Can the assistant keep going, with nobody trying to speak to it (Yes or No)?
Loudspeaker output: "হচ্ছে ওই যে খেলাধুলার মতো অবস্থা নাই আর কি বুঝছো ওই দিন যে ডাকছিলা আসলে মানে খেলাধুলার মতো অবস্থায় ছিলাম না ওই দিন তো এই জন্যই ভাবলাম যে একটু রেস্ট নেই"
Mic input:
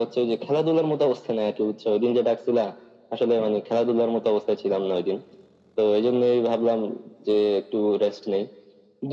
Yes